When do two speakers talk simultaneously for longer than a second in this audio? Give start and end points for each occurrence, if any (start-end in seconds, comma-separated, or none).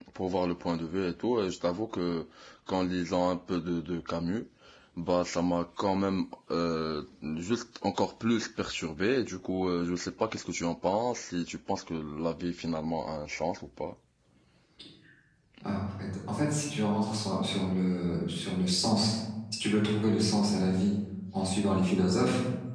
none